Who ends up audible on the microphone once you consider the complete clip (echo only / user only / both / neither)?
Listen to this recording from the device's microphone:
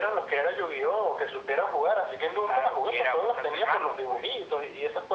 echo only